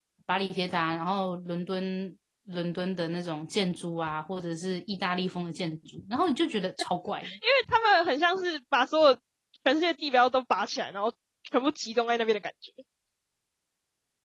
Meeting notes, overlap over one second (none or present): none